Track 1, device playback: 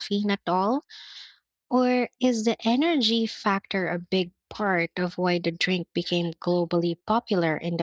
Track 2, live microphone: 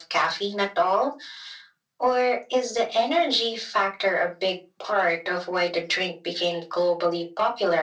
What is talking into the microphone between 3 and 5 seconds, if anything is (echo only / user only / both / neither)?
echo only